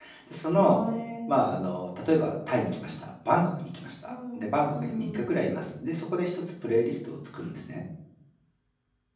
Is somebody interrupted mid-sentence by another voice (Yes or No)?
Yes